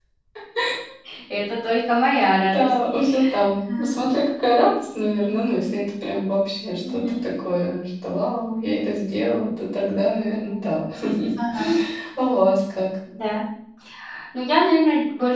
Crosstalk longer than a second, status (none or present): none